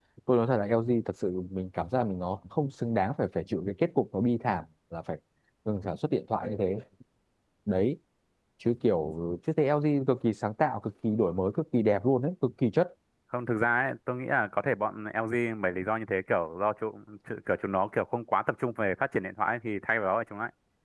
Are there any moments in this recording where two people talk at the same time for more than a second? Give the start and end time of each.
none

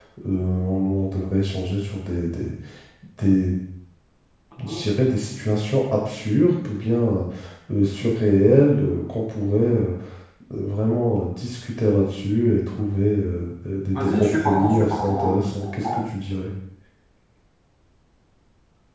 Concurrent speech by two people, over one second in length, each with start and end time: 13.9-16.0

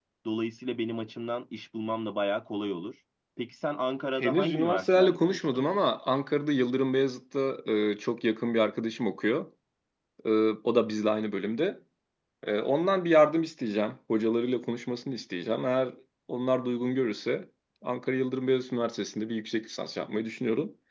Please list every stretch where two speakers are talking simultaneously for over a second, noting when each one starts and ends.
4.2-5.6

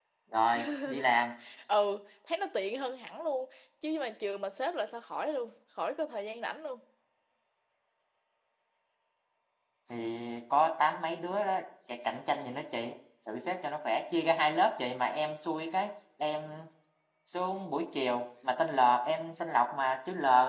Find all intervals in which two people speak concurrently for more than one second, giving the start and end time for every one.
none

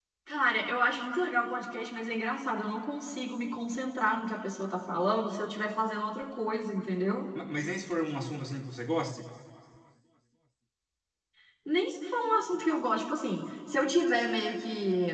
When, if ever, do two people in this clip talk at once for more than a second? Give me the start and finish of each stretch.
none

